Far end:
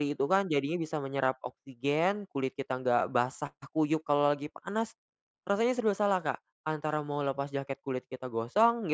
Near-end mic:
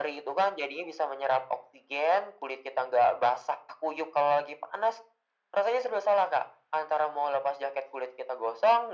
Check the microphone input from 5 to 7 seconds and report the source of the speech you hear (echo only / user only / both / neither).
echo only